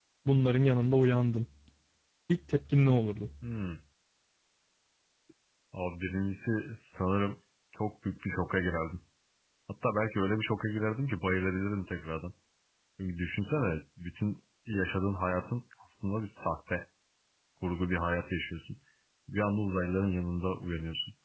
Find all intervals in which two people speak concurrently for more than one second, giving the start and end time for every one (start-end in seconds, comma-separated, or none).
none